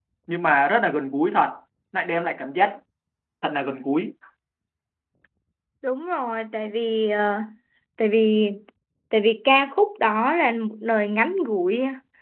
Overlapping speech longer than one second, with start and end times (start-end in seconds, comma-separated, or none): none